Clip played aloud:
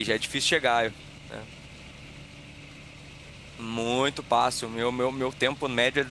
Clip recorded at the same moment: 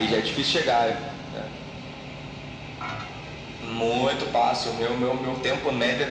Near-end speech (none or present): none